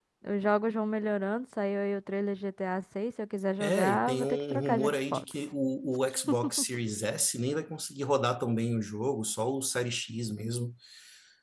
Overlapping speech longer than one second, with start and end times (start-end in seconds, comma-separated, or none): 3.6-5.2